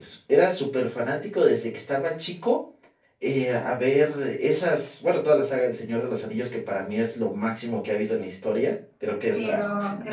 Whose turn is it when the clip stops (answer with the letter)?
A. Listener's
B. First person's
A